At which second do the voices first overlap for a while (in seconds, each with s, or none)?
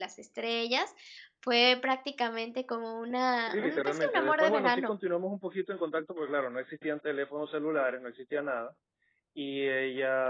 3.5 s